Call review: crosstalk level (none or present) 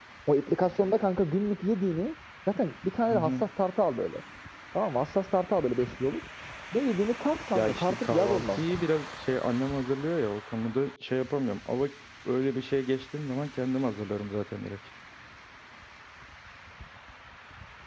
present